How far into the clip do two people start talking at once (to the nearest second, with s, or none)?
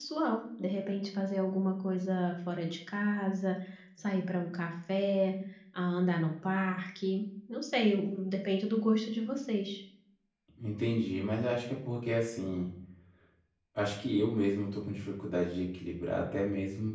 none